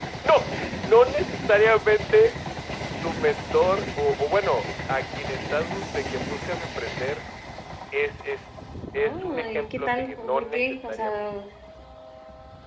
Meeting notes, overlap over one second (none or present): present